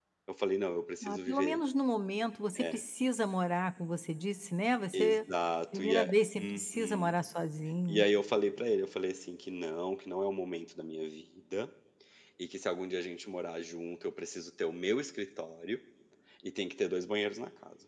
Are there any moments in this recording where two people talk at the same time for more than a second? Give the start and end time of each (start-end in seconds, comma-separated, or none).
5.7-7.1